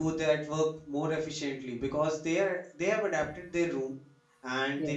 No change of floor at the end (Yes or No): Yes